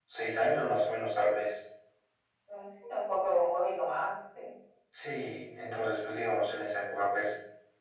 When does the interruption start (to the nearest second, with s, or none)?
none